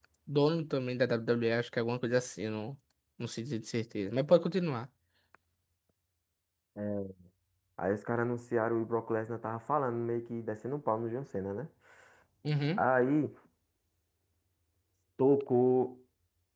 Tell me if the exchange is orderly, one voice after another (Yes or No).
Yes